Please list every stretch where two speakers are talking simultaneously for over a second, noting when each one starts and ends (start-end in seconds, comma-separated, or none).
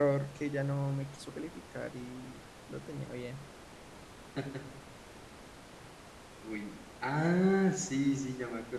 none